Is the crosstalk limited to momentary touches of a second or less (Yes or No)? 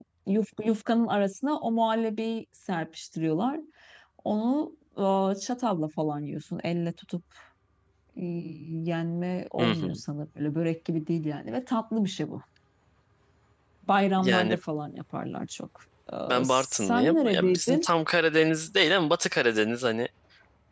No